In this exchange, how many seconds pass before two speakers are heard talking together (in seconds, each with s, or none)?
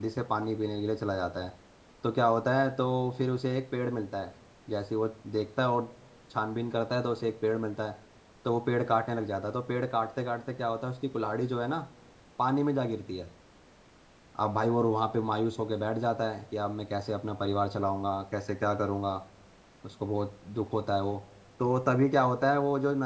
none